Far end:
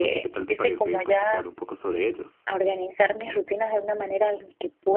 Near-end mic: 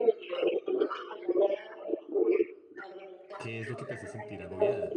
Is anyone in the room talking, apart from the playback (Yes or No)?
Yes